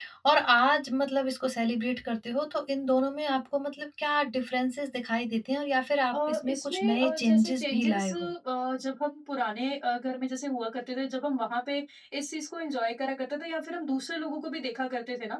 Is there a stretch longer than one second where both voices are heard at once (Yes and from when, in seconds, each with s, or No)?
Yes, from 6.1 s